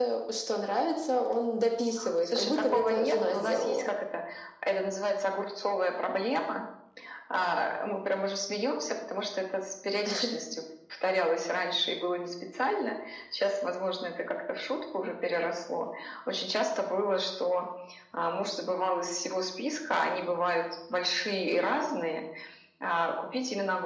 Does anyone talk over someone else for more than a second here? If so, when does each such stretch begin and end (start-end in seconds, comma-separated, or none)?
2.2-3.9